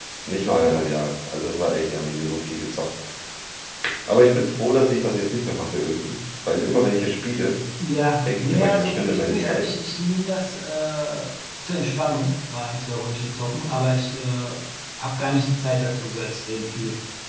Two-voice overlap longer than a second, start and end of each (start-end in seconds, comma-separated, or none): 8.4-9.7